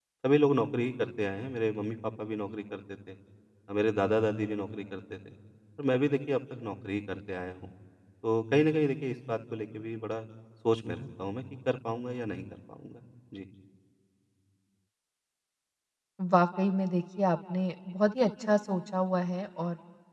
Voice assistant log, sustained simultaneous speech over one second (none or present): none